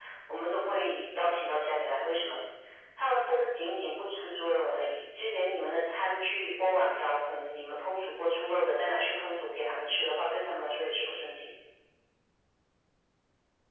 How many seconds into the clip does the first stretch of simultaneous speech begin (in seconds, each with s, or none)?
none